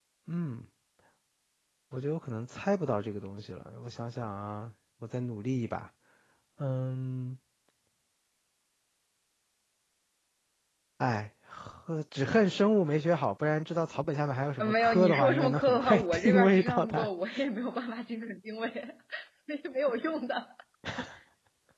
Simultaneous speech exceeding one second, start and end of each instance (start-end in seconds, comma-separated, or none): 14.6-17.1